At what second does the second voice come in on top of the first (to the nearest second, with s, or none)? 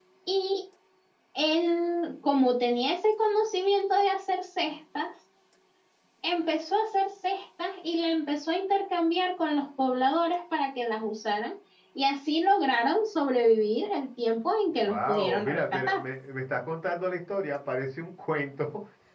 15 s